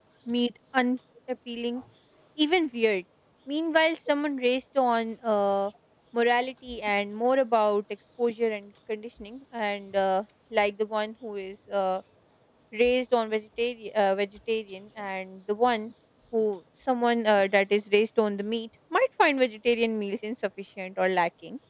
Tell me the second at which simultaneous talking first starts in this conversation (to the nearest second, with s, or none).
none